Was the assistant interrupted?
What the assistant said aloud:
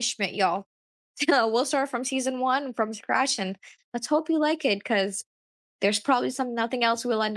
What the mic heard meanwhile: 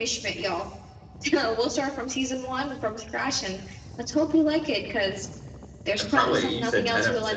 Yes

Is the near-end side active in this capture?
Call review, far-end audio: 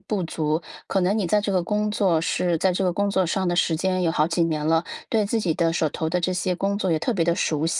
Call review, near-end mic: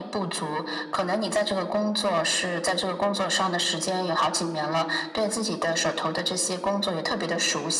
No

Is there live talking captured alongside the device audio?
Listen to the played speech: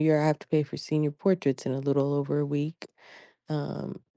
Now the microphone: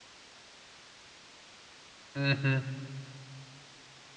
Yes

